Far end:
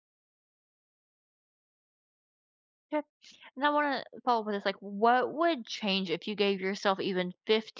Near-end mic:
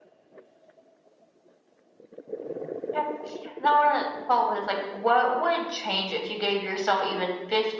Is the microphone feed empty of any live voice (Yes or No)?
Yes